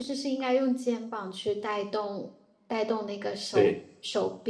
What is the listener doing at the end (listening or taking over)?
listening